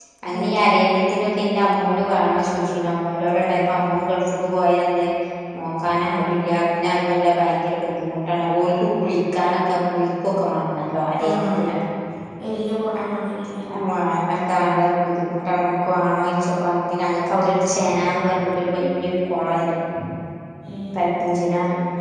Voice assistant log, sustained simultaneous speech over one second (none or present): none